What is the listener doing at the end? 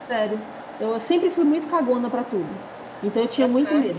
listening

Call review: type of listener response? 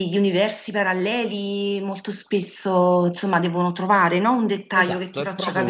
taking over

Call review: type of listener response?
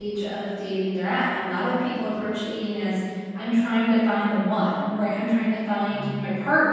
listening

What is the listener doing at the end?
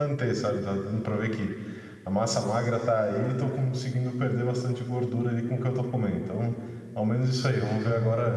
listening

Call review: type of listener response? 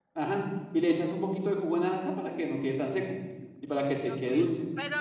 taking over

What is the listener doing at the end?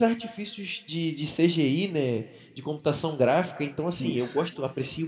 listening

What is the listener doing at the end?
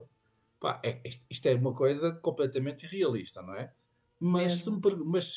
listening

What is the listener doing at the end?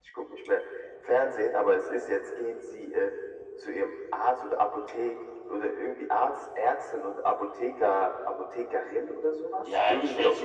taking over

